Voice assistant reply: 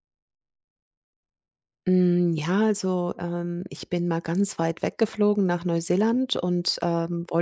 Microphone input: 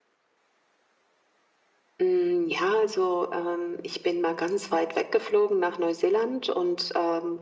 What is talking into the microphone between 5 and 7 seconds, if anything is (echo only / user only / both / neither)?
echo only